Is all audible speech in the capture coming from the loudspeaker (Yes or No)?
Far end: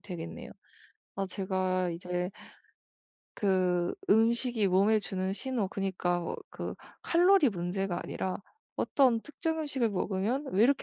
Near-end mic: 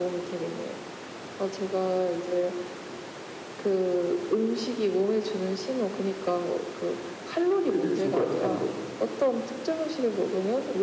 No